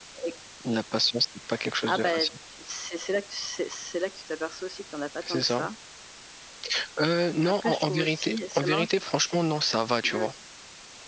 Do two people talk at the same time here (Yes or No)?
Yes